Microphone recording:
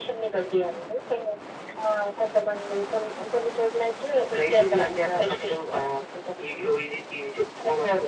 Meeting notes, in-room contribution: none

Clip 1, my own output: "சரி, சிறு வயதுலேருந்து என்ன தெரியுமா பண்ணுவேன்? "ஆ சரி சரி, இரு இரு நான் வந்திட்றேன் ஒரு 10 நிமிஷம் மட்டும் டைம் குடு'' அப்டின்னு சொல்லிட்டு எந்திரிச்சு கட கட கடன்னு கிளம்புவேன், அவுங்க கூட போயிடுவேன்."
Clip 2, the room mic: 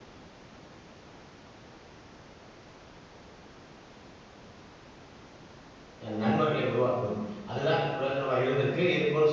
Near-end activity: present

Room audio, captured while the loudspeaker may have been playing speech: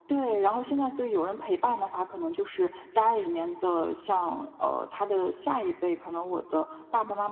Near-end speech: none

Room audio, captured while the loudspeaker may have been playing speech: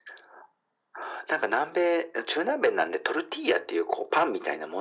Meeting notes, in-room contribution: none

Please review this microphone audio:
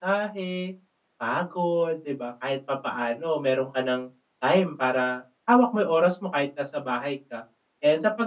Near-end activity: present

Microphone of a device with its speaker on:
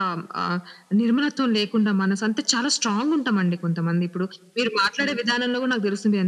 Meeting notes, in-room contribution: none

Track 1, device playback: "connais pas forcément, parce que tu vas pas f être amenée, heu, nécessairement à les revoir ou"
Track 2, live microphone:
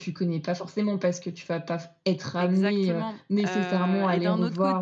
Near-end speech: present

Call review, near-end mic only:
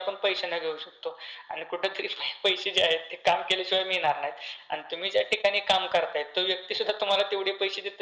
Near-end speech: none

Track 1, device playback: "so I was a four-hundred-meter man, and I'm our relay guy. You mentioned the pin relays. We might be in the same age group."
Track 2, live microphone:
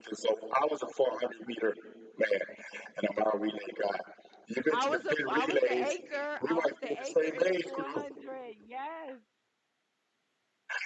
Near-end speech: present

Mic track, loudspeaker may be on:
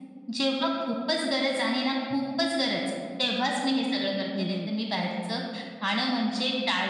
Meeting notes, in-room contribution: present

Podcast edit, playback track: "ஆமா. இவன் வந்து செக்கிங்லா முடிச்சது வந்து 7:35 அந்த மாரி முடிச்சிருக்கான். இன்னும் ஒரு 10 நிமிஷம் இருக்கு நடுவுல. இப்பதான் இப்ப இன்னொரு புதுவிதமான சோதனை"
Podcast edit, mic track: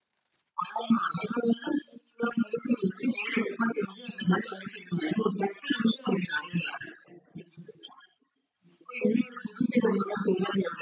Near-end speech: none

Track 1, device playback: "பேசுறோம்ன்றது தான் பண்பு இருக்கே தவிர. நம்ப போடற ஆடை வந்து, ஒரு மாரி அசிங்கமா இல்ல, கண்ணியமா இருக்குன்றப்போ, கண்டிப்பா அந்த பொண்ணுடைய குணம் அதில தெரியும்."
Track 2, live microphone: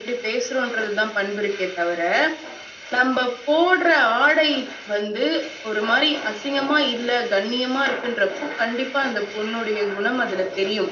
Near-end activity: none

